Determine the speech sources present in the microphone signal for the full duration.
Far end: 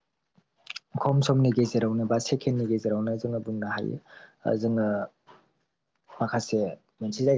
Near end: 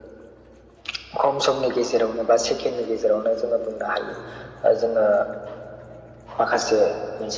echo only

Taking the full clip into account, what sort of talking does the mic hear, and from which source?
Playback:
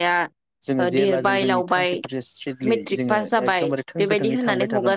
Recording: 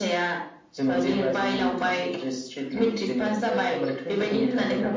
echo only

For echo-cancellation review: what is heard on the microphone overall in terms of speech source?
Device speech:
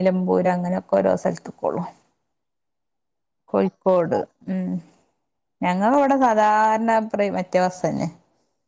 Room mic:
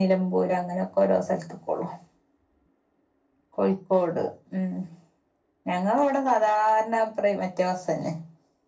echo only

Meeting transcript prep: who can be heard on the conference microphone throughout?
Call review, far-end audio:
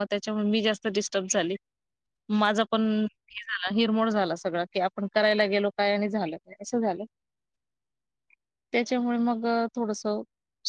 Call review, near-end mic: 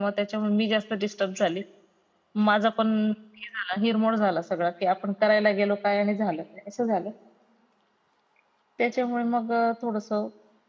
echo only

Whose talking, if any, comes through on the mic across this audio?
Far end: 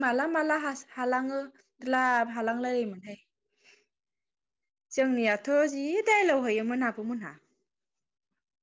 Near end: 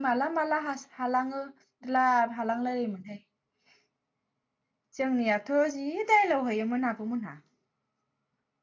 echo only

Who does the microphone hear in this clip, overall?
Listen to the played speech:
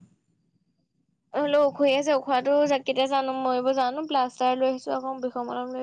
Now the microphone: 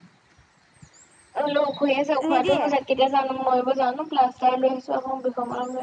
both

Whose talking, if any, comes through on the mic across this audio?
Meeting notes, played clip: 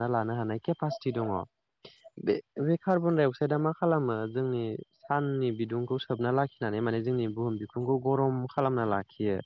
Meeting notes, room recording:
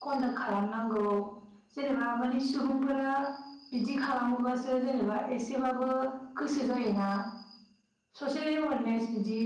user only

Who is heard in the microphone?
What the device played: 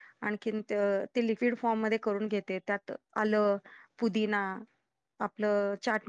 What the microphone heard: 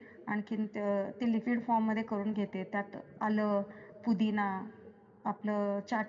echo only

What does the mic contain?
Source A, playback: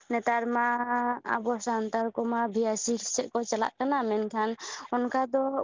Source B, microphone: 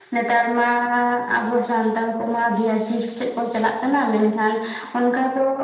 echo only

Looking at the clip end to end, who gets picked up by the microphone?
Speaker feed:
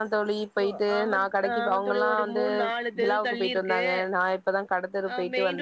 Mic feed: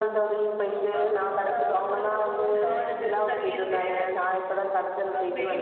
echo only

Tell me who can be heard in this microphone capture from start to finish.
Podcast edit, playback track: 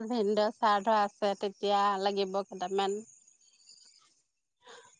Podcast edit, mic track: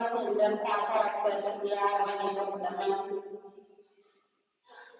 echo only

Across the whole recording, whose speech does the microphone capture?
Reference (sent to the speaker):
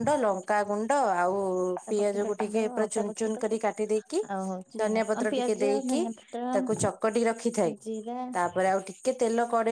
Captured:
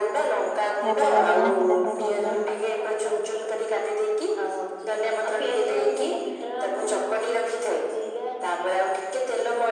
both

